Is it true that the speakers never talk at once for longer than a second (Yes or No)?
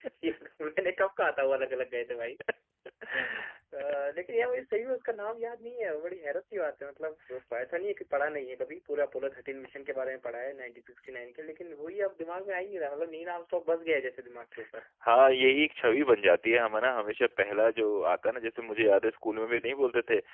Yes